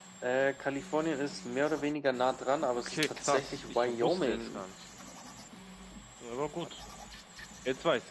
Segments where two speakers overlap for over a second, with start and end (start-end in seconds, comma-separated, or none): 2.8-4.7